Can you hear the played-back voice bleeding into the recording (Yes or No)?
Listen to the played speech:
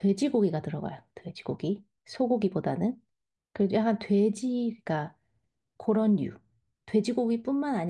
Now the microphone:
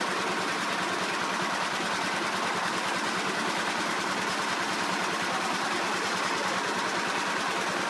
No